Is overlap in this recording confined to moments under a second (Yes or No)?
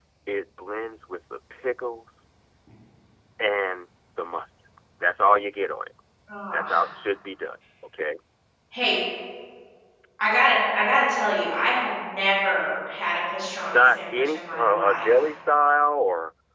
No